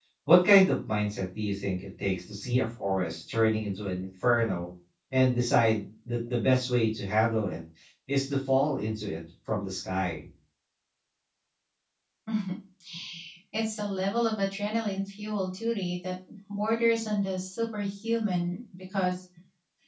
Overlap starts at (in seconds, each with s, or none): none